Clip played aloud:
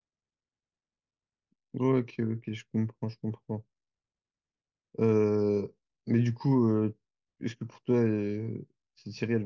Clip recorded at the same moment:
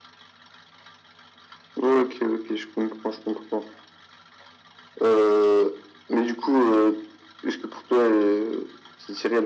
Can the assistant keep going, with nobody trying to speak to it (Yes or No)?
Yes